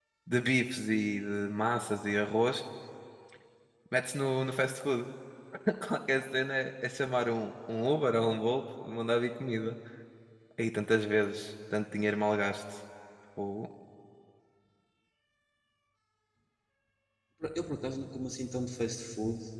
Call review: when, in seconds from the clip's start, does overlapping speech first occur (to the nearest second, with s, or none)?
none